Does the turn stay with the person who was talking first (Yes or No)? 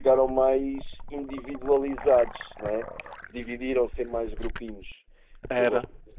Yes